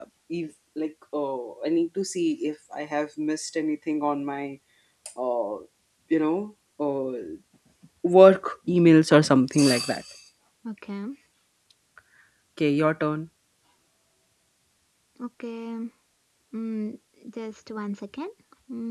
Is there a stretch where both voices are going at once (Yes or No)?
No